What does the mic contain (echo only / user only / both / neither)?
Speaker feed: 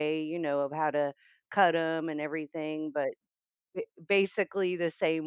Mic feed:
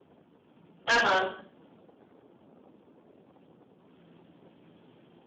user only